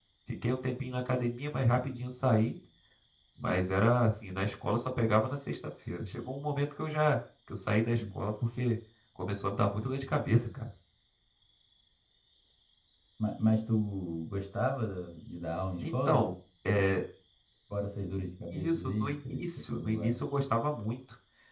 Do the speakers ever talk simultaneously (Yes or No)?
Yes